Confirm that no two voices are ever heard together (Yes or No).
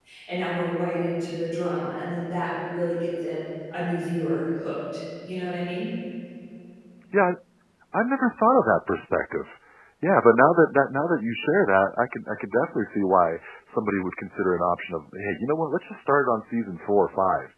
Yes